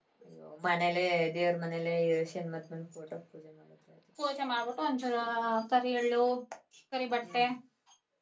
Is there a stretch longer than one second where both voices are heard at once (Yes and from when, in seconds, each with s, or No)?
No